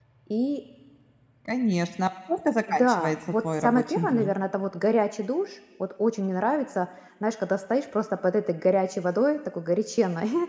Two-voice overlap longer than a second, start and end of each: 2.7-4.3

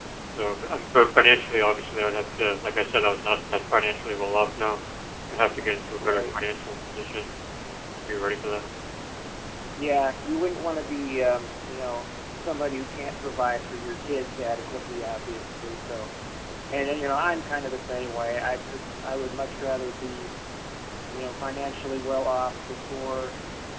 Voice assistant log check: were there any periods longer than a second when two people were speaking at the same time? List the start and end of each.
none

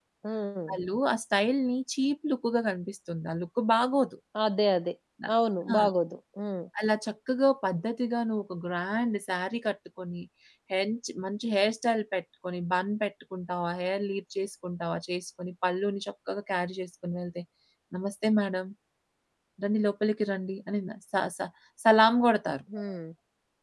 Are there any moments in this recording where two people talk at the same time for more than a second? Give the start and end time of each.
none

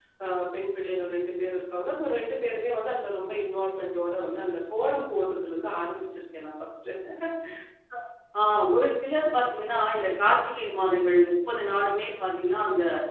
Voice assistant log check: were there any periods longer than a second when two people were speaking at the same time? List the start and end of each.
none

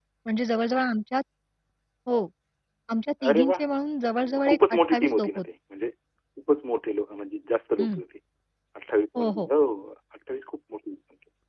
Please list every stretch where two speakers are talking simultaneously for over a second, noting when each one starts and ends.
4.2-5.5

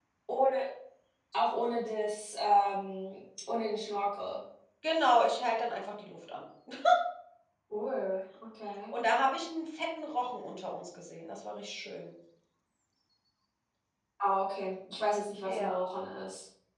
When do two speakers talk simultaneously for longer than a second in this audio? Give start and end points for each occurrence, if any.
none

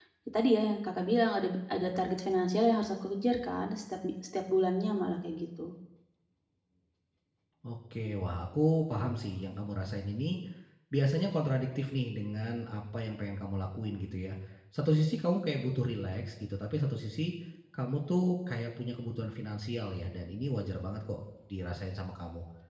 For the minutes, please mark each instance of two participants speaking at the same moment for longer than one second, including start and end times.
none

